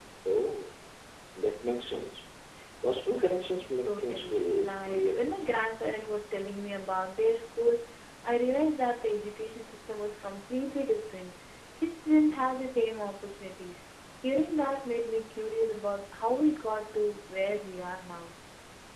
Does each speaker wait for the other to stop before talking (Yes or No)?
No